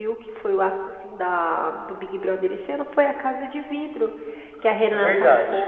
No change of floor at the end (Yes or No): Yes